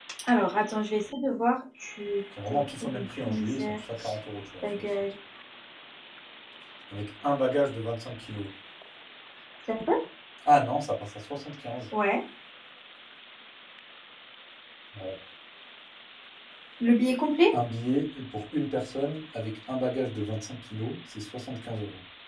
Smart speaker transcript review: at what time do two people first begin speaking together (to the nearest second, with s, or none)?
2 s